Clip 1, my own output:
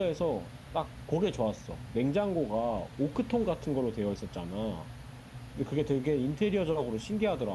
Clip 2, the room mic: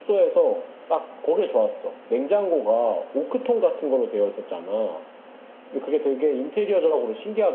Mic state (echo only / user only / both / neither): echo only